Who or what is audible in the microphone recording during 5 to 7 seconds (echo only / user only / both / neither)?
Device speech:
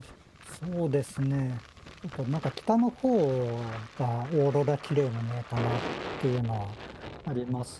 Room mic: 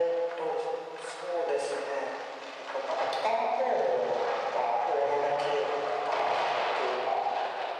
echo only